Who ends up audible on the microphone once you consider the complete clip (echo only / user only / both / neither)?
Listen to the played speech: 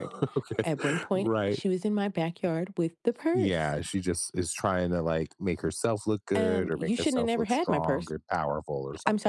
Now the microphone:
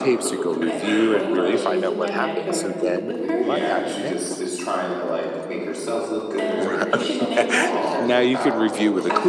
both